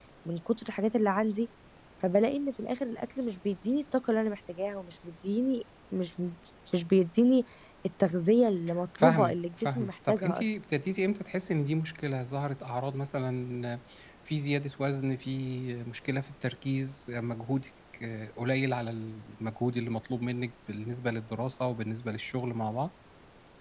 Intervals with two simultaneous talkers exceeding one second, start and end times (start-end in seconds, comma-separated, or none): 9.0-10.5